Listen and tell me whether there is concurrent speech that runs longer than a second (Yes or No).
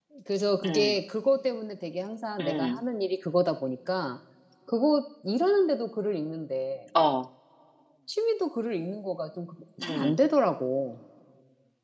No